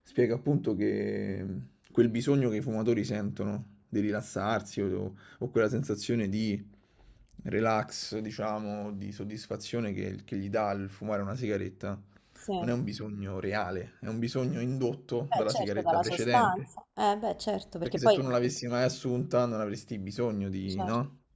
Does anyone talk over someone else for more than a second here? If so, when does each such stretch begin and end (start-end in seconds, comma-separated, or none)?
15.3-16.6